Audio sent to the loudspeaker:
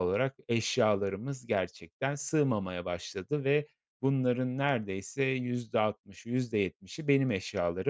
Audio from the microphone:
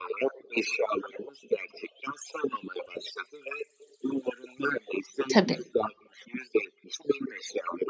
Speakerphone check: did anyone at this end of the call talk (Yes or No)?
Yes